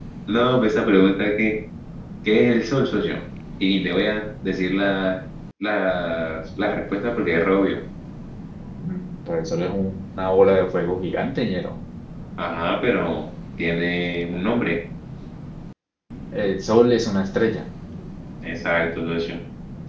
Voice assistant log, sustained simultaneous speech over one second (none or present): none